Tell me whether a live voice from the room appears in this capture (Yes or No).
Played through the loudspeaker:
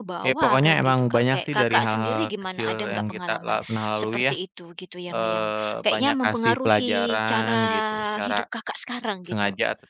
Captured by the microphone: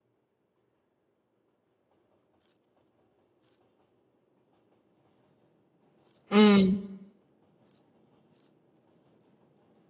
Yes